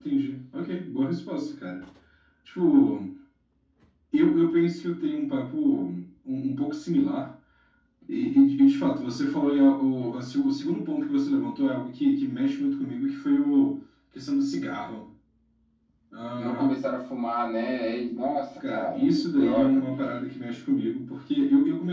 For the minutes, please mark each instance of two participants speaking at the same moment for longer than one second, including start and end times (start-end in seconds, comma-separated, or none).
18.7-20.2